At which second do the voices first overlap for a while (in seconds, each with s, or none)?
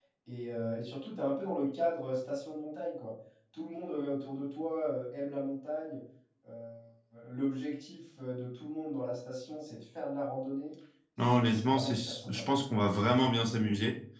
11.3 s